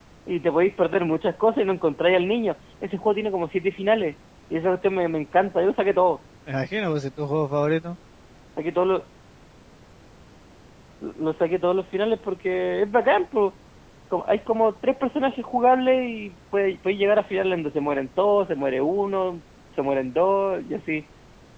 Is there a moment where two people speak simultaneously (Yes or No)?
No